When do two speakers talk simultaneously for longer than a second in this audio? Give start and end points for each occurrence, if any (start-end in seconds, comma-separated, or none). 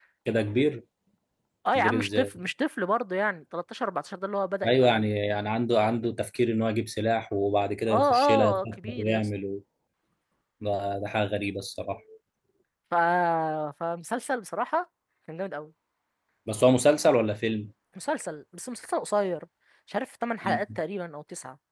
7.9-9.3